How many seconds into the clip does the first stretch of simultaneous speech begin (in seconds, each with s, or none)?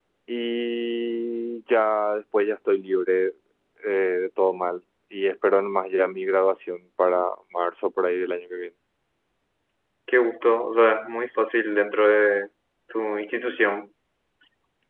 none